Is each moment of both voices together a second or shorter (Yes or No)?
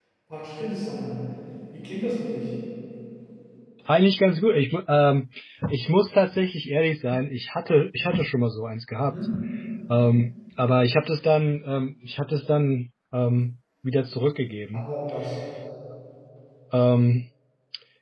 Yes